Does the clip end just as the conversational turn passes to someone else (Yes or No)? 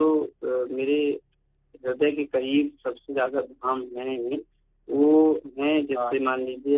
No